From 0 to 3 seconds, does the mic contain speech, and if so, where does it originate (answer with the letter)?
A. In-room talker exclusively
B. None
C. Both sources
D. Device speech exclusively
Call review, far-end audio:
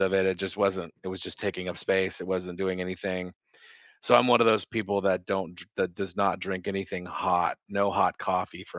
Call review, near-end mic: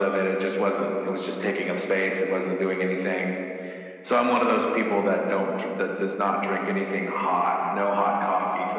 D